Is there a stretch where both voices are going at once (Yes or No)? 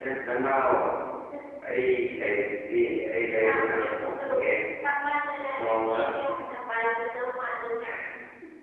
Yes